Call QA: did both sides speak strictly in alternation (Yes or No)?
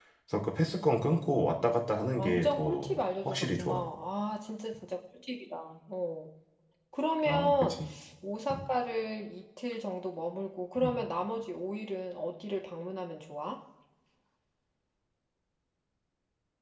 No